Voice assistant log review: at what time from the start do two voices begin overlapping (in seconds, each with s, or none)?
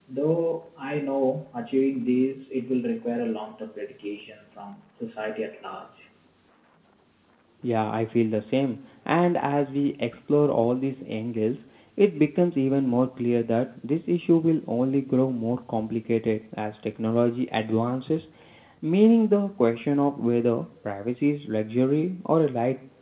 none